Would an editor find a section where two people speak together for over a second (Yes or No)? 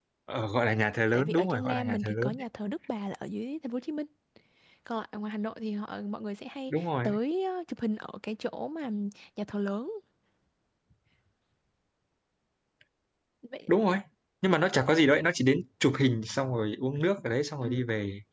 Yes